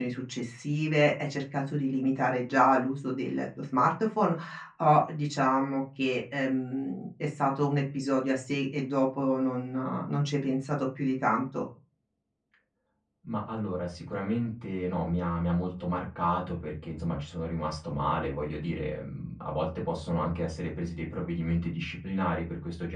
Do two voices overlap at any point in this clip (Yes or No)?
No